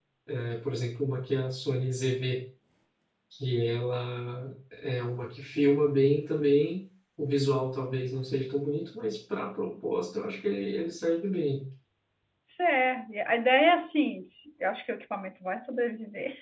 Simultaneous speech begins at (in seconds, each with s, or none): none